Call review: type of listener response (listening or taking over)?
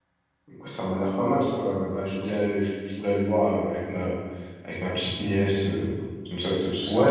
taking over